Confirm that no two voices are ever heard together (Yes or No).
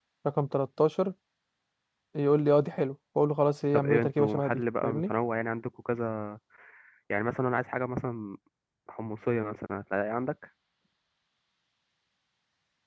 No